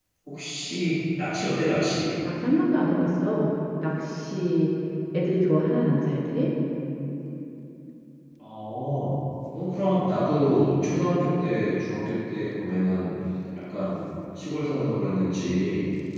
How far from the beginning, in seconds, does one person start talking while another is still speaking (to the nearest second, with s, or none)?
none